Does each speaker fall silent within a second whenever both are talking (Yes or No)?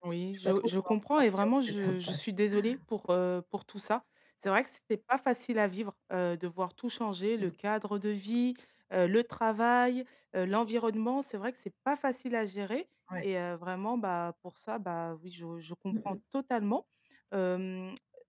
No